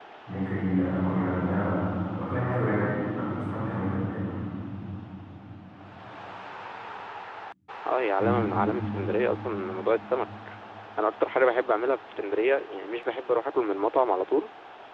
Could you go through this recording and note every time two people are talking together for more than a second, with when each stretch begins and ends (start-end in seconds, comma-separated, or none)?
none